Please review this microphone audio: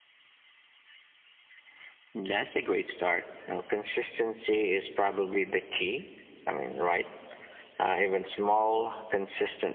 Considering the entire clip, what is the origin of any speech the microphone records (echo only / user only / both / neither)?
echo only